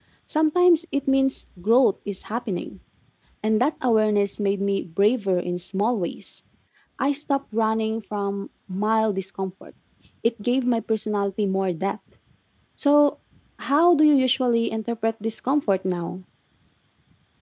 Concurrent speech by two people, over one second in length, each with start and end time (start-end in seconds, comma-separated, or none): none